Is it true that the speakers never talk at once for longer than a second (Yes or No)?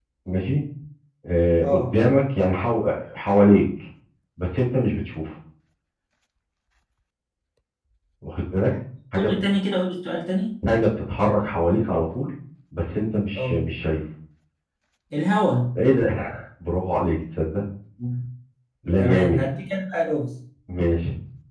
Yes